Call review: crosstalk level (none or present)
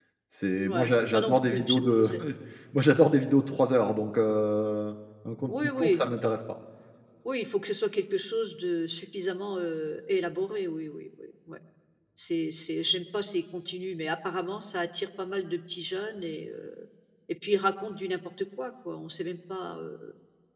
present